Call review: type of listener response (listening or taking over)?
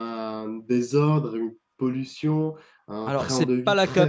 taking over